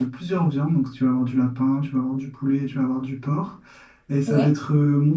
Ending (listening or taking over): listening